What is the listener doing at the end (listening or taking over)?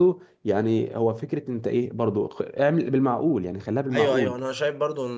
taking over